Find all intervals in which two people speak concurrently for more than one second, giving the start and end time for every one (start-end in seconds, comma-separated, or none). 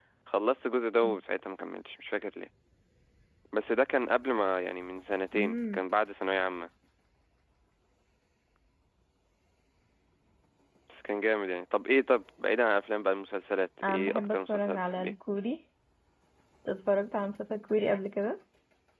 13.9-15.1